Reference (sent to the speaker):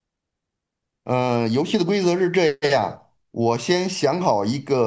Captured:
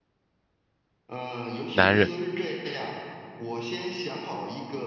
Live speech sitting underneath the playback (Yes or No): No